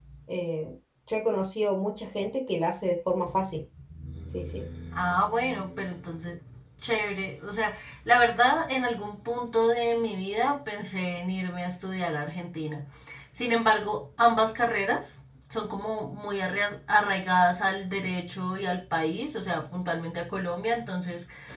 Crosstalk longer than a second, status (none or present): none